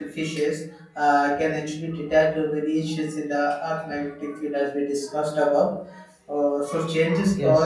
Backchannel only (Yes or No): Yes